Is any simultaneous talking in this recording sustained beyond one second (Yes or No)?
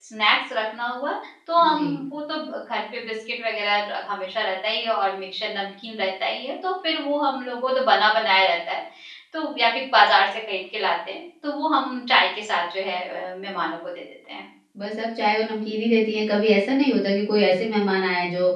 No